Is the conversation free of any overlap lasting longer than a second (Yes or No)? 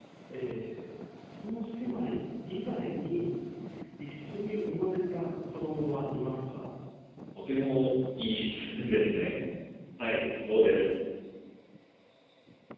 Yes